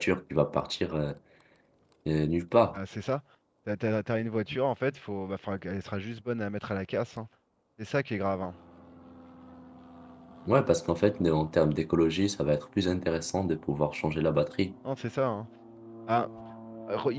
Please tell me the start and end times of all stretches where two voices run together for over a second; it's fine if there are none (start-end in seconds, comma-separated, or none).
none